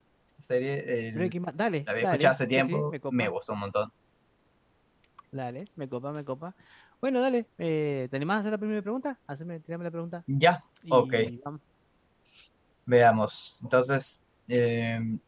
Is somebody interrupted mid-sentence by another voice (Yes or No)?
Yes